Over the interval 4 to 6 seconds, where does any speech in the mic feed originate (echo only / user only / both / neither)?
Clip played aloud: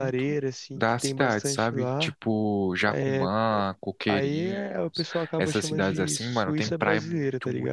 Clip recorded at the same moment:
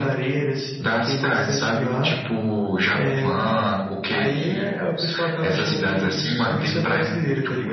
echo only